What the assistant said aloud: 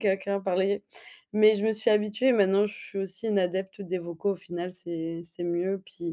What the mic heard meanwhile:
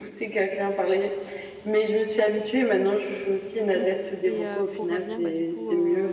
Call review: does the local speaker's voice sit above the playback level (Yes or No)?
No